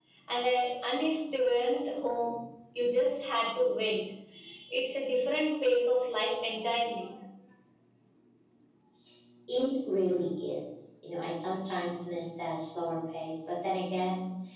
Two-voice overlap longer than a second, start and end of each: none

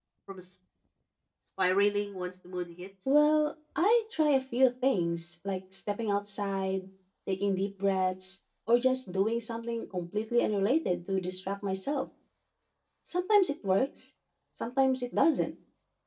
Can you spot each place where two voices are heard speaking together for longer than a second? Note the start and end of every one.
none

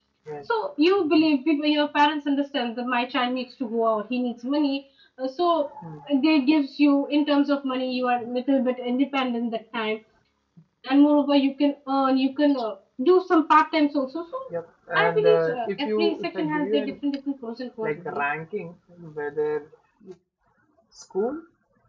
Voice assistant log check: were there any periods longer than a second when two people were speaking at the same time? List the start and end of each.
15.0-16.9

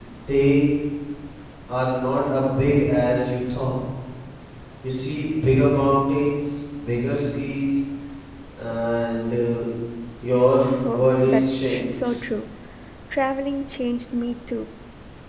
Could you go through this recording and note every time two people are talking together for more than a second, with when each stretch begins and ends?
10.8-12.2

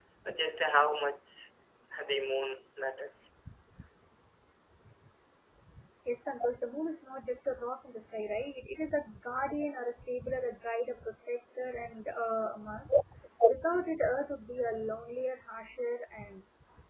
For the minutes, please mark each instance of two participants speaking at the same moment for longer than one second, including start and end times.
none

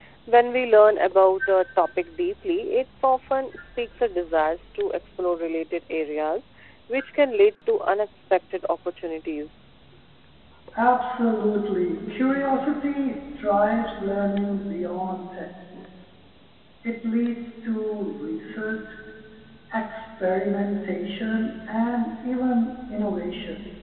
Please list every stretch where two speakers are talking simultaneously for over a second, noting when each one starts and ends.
none

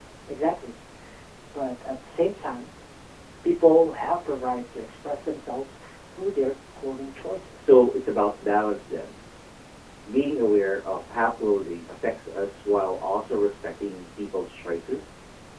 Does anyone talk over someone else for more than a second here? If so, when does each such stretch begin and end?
none

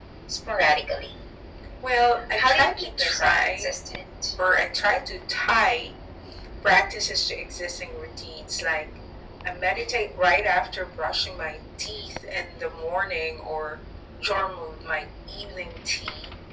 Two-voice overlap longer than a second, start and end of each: 2.4-3.7

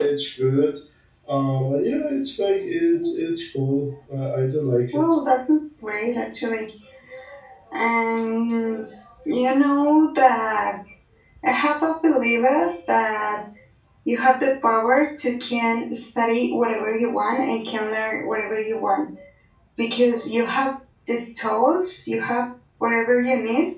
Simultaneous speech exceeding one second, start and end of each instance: none

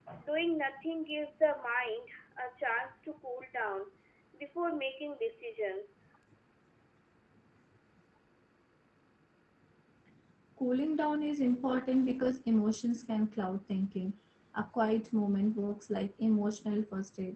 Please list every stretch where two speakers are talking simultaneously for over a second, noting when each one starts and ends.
none

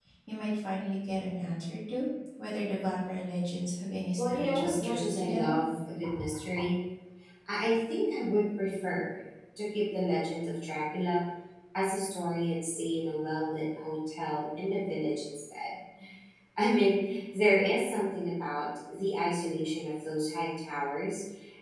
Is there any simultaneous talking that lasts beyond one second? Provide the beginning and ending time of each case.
4.2-5.5

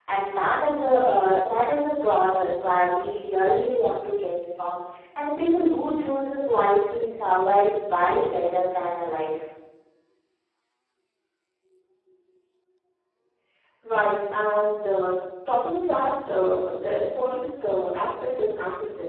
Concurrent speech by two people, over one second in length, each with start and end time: none

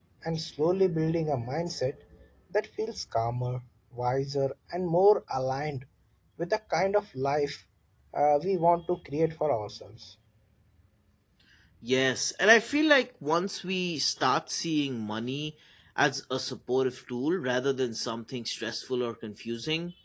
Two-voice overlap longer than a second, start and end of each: none

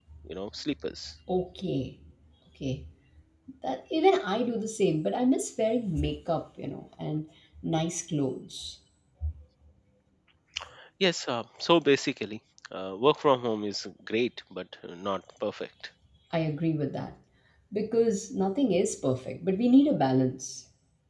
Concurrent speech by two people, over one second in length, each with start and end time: none

